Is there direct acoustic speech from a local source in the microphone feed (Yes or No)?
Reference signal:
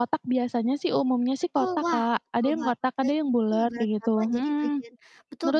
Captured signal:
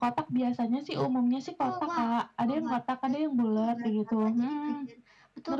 No